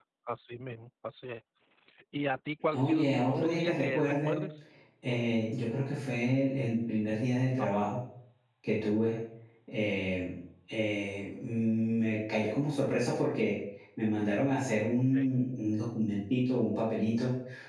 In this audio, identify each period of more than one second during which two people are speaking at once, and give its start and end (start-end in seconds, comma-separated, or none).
2.7-4.3